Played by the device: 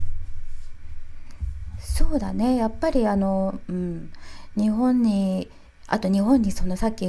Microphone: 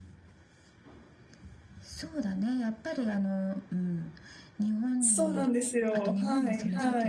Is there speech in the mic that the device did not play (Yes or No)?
Yes